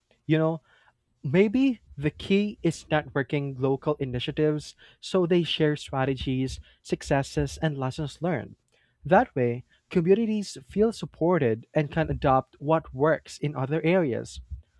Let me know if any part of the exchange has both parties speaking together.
No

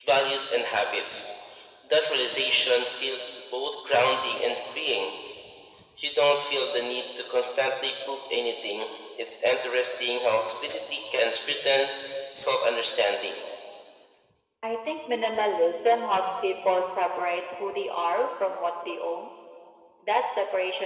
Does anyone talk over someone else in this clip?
No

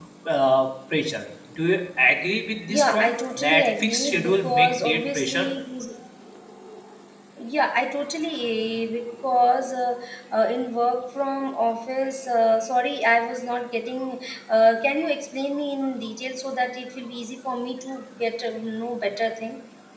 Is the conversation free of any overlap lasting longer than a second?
No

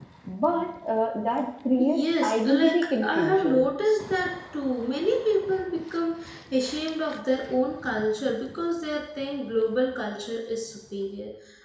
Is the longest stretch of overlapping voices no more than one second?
No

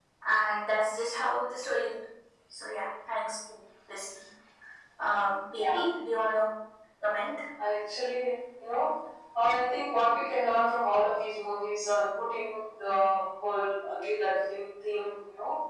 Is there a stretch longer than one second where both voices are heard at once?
No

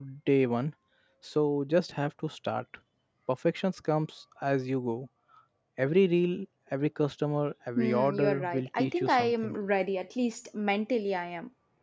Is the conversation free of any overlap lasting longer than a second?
No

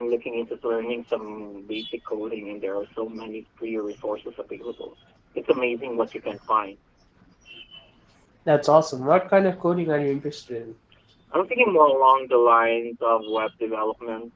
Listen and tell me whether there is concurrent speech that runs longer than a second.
No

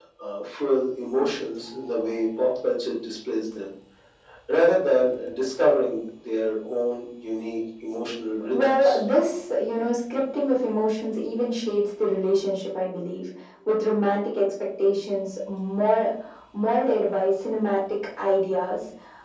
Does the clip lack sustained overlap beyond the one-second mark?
Yes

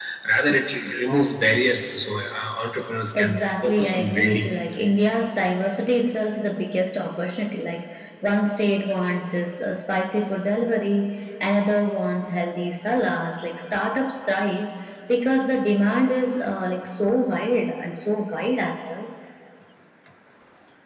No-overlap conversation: No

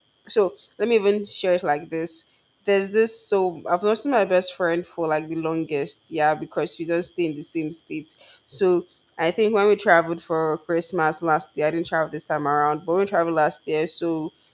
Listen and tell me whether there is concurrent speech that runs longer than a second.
No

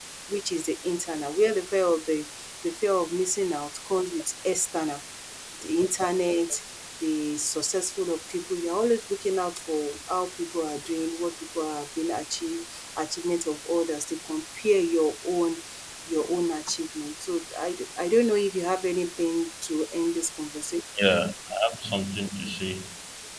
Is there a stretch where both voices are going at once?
No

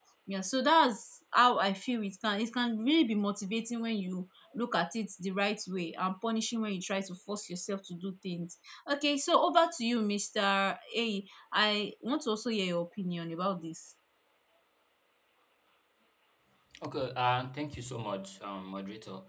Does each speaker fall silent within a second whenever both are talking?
Yes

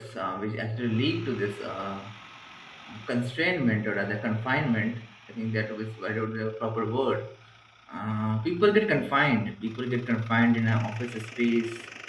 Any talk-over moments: No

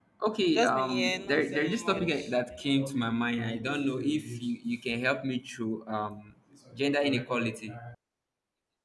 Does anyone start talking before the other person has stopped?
Yes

